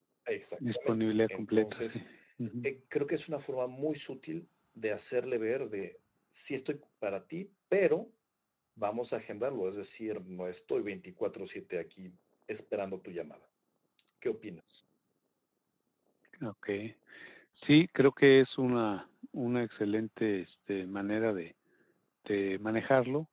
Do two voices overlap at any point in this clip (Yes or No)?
Yes